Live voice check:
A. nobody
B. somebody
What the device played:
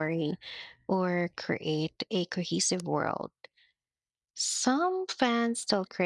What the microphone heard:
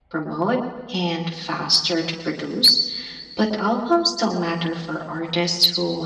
B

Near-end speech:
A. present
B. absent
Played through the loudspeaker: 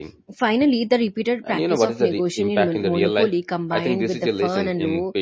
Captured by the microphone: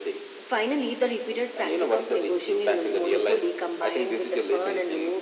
B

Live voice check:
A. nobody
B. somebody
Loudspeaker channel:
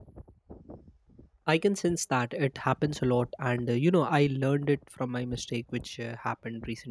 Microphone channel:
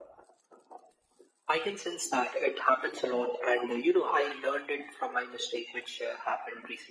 A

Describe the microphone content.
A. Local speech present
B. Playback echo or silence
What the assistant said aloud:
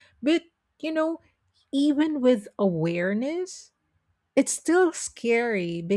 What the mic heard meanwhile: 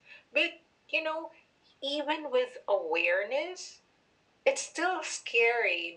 B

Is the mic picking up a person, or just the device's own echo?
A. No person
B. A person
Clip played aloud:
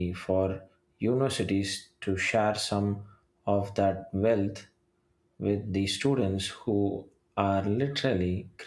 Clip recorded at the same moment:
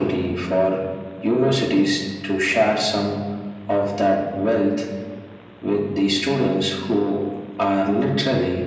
A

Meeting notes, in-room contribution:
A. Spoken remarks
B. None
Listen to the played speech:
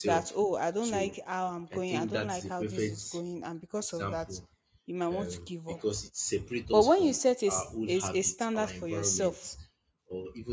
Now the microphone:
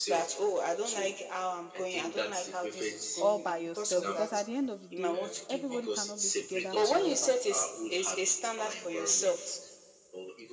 A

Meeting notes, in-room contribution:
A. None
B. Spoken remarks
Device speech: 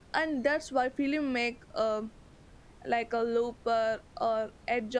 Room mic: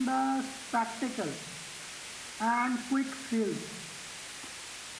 B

